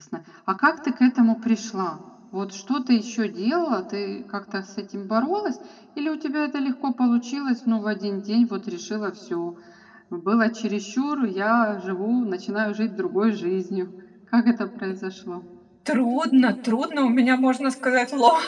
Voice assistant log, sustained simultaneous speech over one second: none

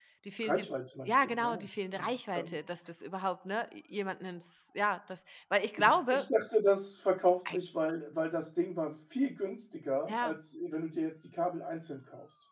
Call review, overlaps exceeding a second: present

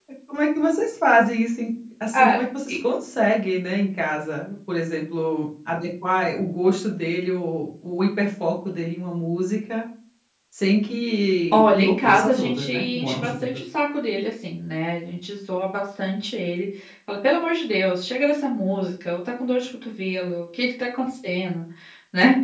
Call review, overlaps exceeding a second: present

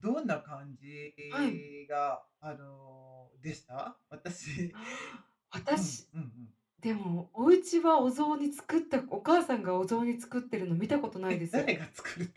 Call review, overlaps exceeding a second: none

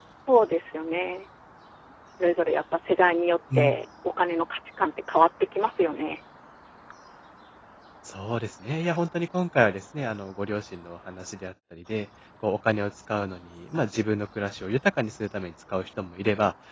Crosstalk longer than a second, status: none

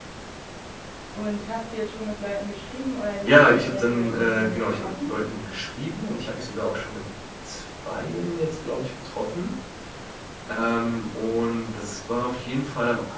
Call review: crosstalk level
present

